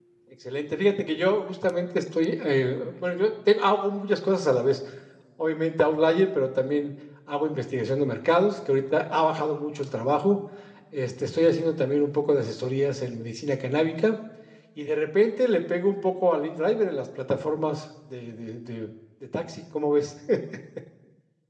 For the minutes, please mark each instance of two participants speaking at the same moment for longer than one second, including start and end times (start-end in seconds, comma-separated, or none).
none